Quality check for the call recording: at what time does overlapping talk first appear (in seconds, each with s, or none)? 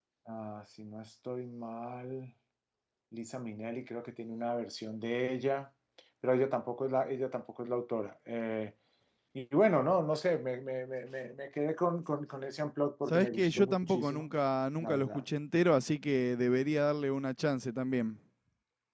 13.1 s